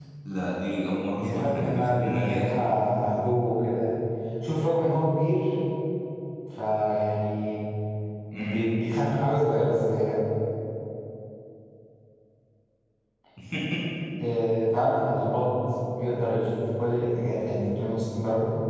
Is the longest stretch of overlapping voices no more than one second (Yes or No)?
No